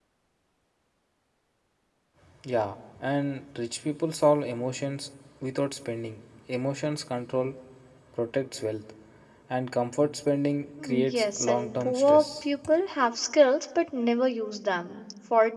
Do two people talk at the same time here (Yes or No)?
Yes